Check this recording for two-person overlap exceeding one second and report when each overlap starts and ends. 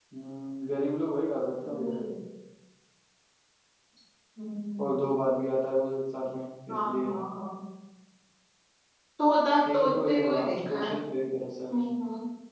9.6-10.9

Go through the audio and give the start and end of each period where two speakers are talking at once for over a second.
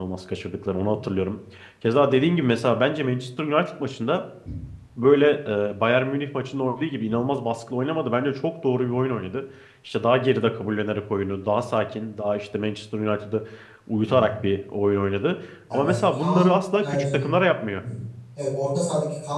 15.7-17.3

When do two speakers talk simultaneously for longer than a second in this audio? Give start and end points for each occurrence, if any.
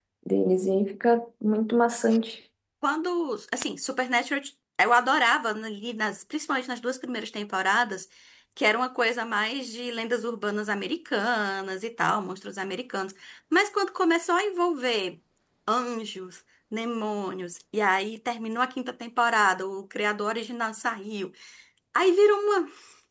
none

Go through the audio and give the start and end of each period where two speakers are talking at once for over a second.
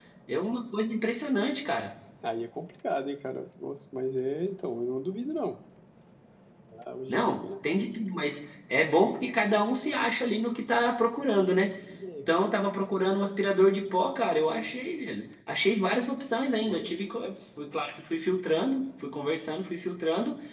none

